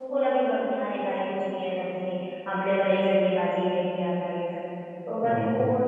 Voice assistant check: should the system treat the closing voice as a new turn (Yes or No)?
No